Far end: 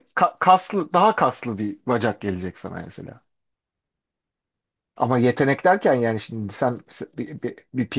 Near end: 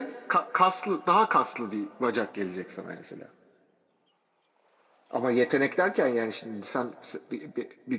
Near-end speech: none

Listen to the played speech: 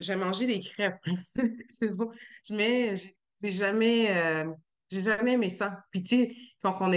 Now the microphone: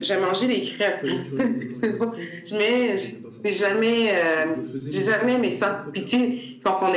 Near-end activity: present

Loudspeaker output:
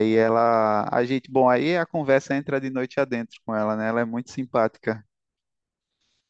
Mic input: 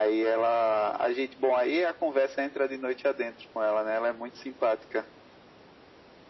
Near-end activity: none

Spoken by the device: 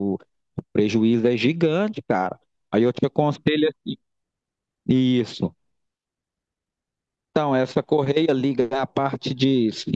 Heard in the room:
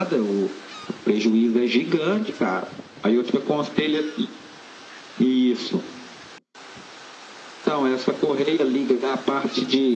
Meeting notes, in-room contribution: none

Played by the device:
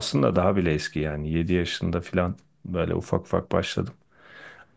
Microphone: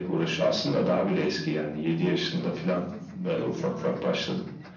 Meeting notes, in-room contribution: present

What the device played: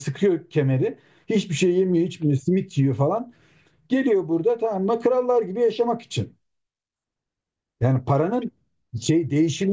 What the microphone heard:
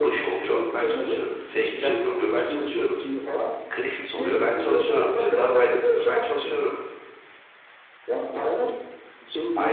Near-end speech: present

